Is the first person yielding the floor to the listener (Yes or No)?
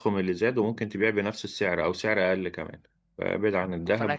Yes